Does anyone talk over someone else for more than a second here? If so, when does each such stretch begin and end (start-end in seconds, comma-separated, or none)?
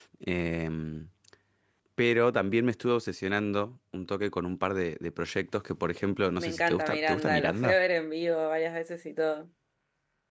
6.4-7.8